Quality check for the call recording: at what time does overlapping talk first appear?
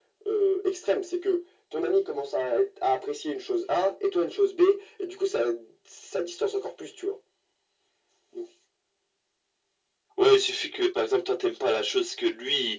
none

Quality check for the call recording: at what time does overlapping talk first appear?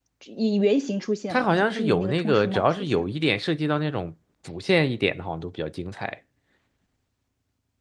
1 s

